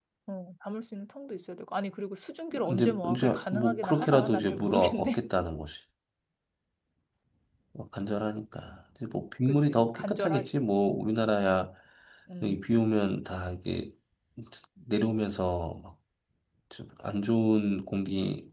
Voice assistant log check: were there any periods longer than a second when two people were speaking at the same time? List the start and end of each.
2.7-5.2, 9.5-10.7

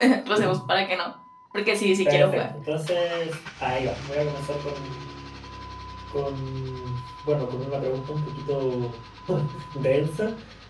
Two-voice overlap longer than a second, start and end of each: none

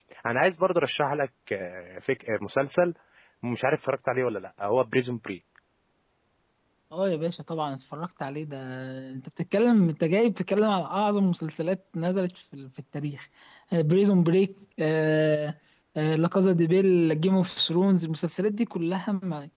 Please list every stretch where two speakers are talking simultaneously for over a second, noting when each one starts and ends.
none

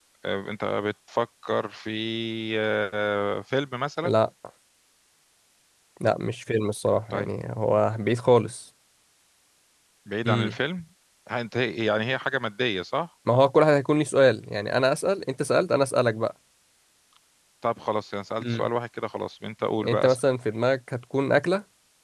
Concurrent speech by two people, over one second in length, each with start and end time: none

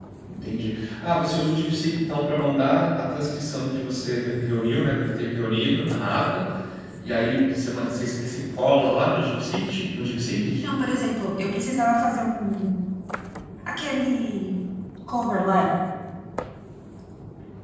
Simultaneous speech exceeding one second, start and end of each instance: none

